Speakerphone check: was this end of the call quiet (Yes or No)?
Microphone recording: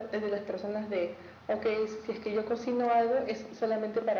Yes